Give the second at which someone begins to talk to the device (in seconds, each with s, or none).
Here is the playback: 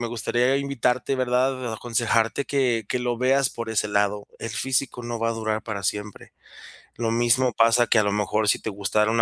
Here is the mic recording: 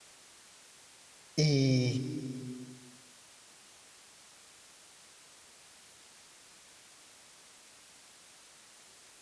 1.4 s